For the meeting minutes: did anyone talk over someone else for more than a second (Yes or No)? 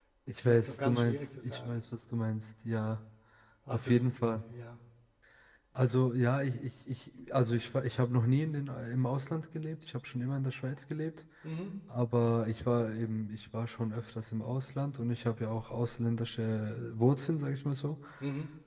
Yes